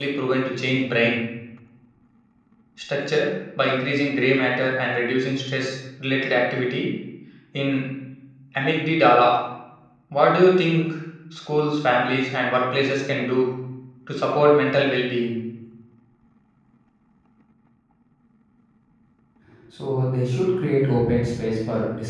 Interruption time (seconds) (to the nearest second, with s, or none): none